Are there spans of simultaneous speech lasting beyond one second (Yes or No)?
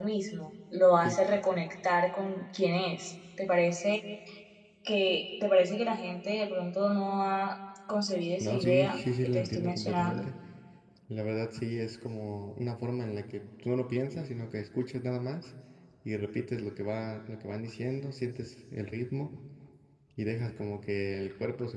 Yes